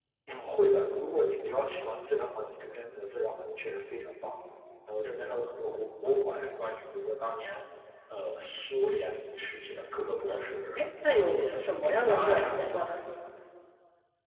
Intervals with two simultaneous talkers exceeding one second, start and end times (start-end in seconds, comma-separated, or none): 10.3-12.8